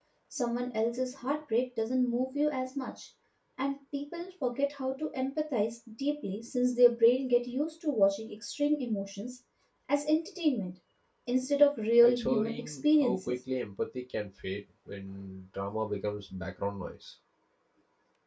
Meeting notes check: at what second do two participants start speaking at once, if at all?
12 s

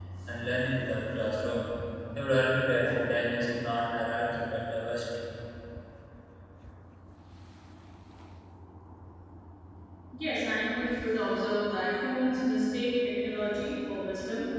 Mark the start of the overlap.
none

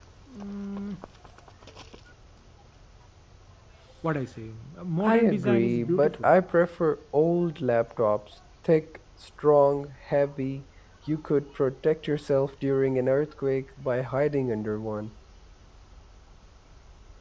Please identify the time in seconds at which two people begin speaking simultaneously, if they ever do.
5 s

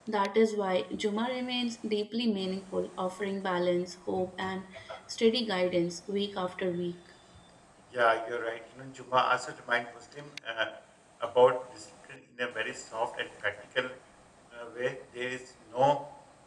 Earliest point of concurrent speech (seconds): none

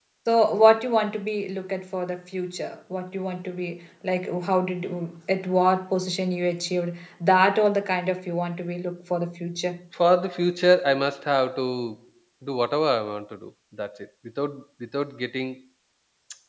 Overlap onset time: none

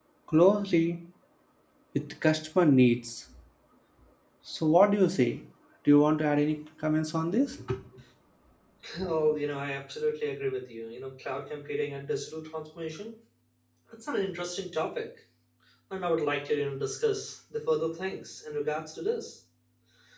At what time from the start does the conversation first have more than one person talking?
none

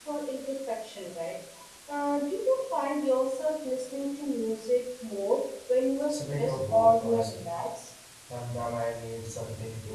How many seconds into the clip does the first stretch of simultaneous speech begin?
6 s

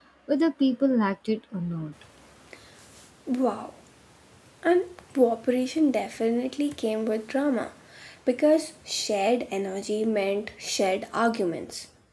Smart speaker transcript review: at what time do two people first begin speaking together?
none

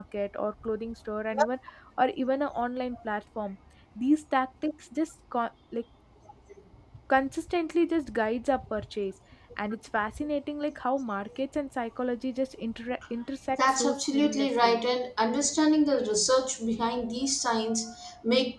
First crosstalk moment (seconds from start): 14 s

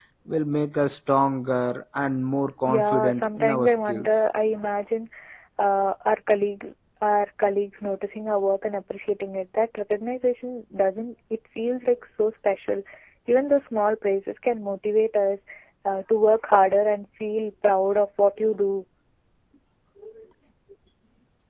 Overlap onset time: 3 s

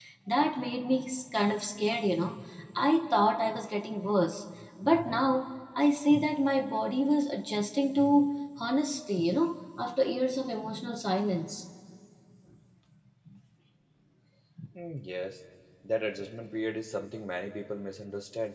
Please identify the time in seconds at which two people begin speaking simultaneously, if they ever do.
none

